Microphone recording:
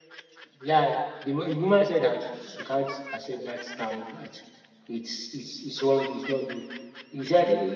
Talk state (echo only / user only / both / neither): echo only